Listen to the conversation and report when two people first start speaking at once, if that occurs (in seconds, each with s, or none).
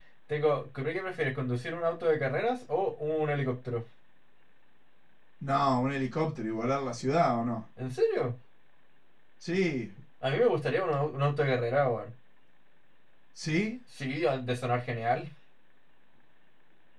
none